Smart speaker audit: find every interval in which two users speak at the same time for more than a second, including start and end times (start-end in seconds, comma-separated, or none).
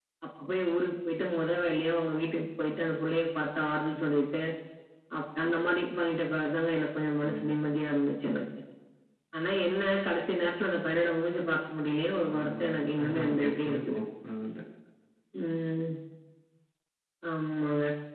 12.4-14.0